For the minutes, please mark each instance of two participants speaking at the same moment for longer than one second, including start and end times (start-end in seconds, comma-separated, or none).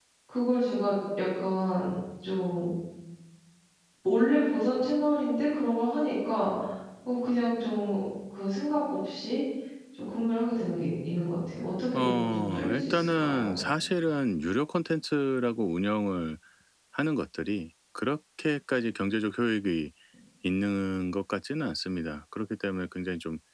11.9-13.5